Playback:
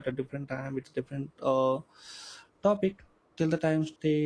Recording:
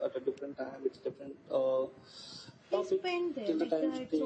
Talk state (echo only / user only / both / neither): both